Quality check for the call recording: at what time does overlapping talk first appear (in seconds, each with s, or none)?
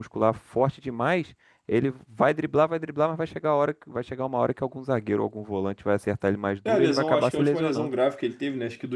6.6 s